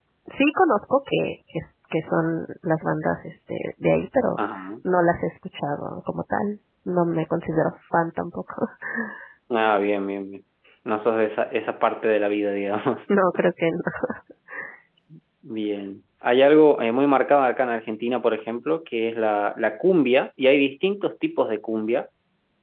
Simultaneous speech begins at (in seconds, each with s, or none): none